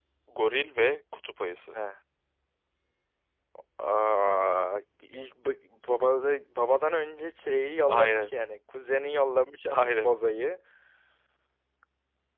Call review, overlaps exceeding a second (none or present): none